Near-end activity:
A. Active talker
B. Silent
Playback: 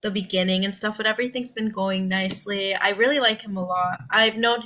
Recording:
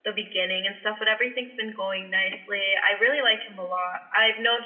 B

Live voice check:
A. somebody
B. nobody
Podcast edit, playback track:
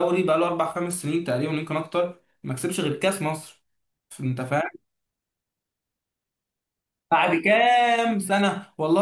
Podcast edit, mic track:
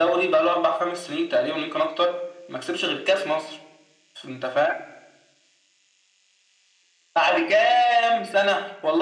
B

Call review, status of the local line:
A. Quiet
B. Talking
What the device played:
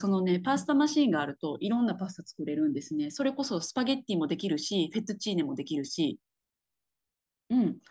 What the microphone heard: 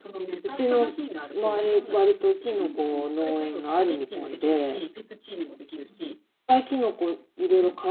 B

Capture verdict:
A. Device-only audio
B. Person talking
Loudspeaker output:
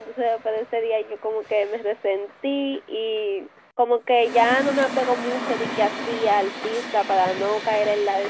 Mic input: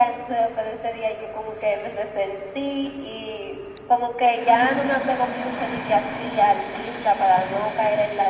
A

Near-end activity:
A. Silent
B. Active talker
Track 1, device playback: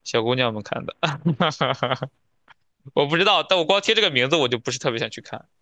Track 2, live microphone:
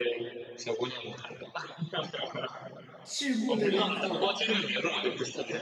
B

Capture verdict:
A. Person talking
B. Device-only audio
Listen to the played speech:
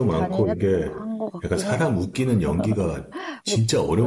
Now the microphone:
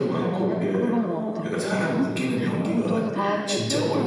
A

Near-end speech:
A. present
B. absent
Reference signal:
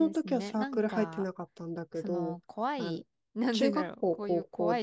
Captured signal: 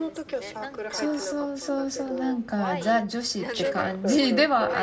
A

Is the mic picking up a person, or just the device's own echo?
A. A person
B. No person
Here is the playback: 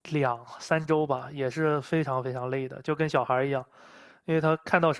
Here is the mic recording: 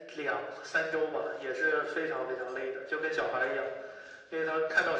B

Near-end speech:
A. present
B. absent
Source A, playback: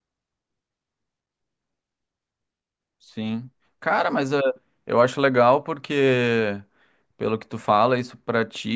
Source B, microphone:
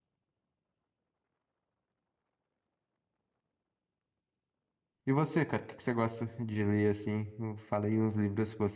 A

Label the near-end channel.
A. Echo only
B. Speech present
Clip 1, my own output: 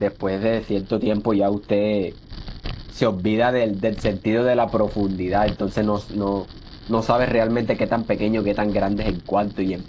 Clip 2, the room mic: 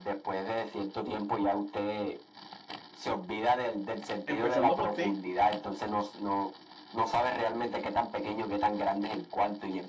B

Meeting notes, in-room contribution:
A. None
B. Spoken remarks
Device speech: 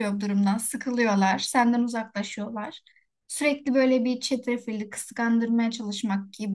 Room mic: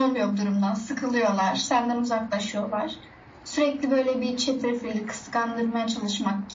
A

